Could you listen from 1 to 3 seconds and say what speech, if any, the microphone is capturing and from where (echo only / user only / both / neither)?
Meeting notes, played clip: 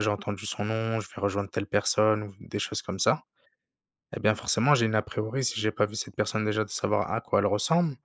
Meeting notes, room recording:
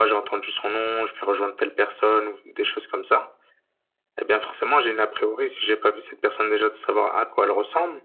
echo only